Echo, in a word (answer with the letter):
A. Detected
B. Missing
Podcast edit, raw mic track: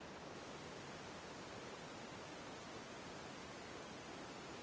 B